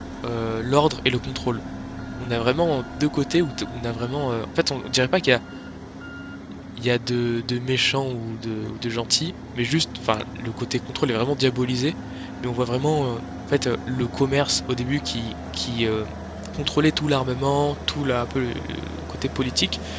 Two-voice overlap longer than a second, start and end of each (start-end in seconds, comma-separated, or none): none